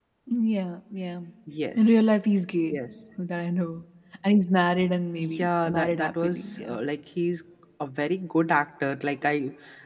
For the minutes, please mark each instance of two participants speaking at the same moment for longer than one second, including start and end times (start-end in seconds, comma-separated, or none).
5.2-6.8